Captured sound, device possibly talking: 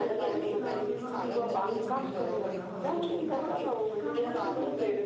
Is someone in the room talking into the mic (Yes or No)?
Yes